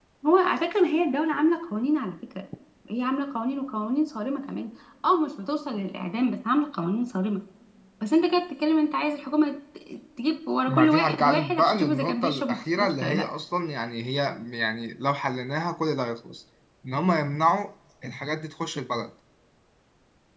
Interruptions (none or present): present